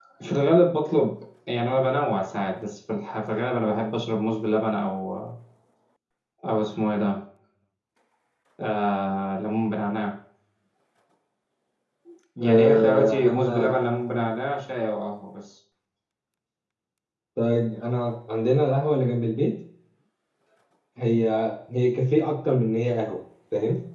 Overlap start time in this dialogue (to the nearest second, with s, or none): 12 s